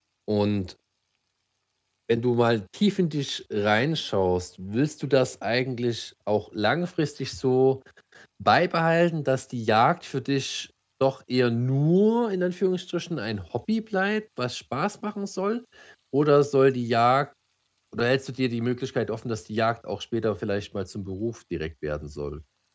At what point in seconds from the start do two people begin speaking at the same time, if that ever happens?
none

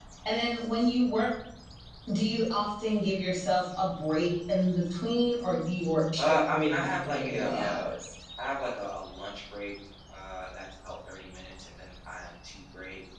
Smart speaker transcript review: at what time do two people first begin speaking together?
6 s

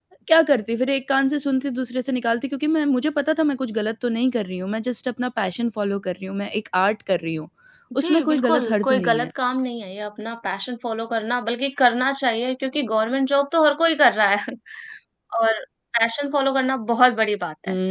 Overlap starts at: 8 s

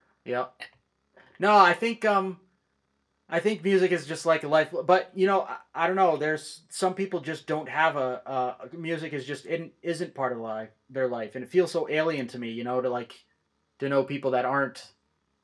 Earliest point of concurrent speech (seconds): none

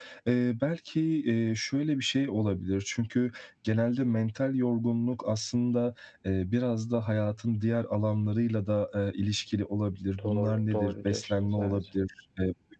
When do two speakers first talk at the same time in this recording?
10 s

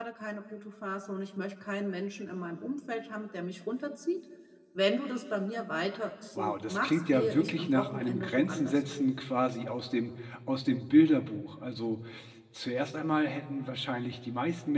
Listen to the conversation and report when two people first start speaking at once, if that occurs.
6 s

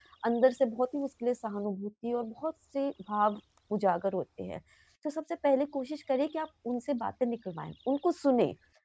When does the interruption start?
none

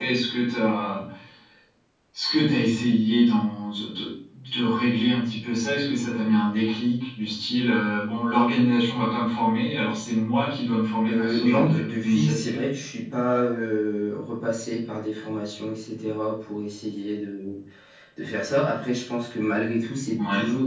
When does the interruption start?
11 s

